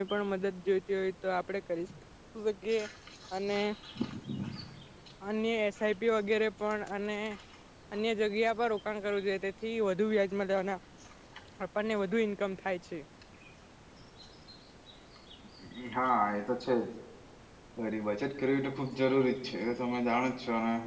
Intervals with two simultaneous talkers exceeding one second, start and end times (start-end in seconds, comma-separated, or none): none